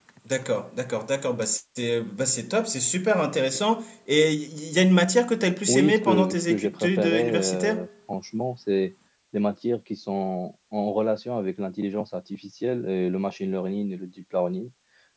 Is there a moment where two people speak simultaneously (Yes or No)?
Yes